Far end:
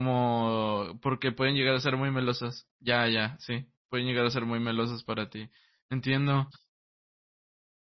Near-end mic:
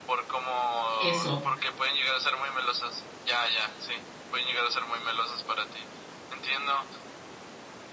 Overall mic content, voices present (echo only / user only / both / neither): both